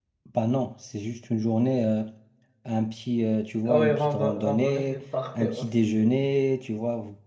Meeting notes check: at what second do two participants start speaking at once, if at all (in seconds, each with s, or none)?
3.6 s